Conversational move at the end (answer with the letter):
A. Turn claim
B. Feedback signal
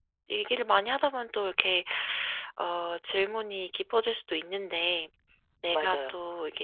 B